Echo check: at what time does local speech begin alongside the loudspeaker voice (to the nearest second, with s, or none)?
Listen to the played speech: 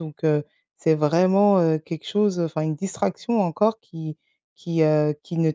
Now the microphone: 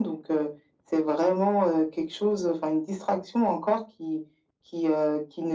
none